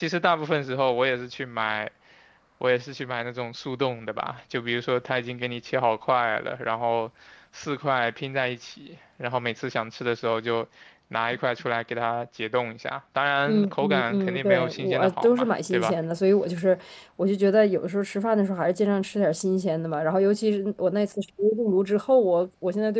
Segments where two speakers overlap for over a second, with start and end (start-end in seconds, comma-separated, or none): 13.5-15.9